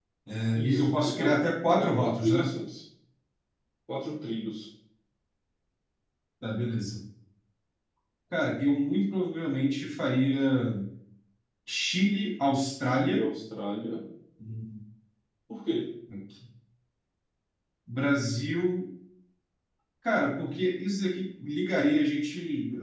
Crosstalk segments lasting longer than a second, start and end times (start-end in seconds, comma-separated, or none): 0.6-2.5